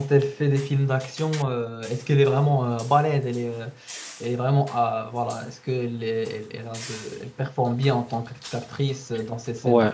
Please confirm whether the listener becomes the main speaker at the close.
Yes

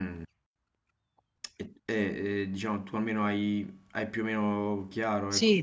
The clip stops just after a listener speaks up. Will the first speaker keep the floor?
No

